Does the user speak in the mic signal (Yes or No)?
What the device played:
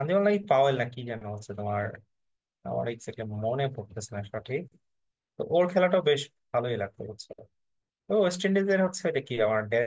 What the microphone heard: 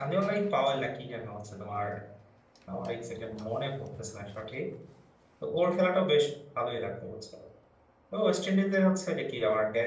No